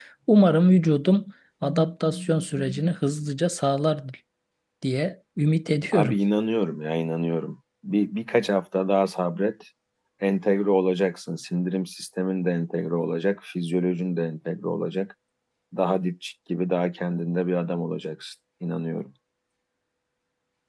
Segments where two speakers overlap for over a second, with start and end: none

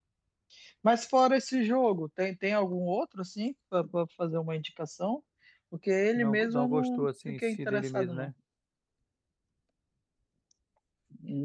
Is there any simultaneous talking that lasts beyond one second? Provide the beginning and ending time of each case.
6.2-8.3

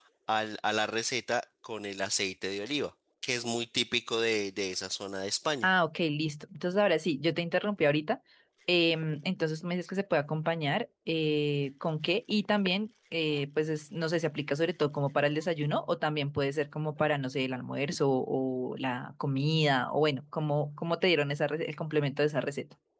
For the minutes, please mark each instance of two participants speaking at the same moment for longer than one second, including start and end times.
none

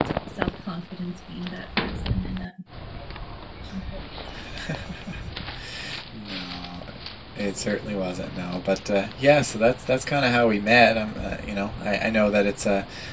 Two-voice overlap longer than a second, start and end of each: none

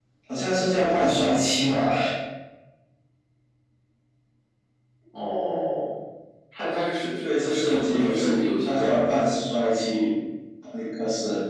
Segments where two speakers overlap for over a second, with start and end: 7.2-9.0

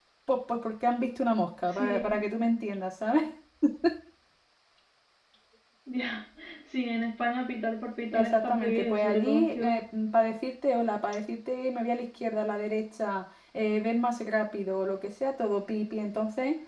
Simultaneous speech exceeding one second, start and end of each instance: 8.1-9.6

